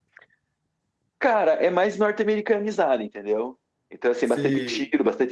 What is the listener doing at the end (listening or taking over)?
listening